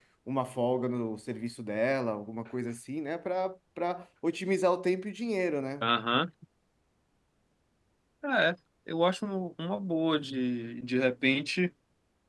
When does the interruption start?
none

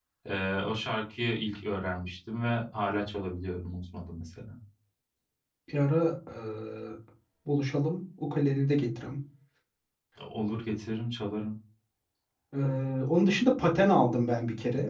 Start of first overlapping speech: none

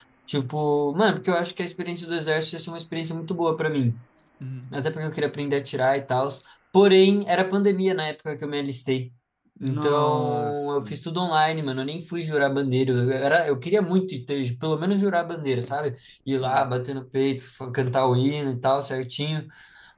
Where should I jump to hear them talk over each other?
10 s

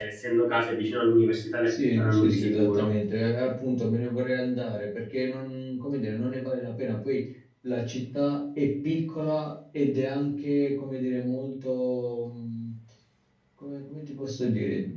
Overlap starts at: 2 s

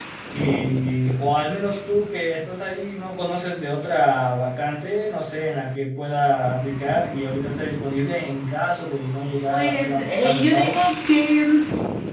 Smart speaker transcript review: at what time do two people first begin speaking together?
10 s

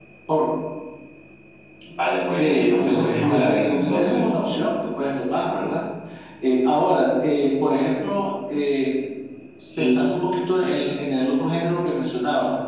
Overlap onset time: 2 s

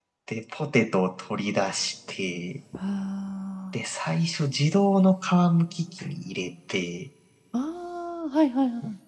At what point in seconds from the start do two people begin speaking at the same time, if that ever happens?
none

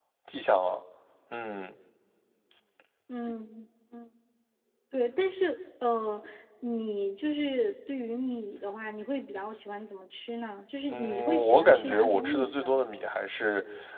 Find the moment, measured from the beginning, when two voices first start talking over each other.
11 s

